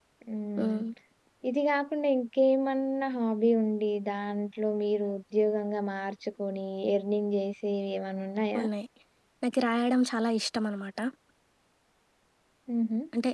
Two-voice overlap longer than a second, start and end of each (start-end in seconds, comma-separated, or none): none